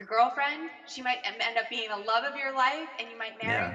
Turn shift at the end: No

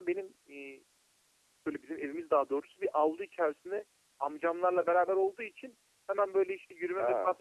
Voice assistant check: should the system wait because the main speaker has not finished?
Yes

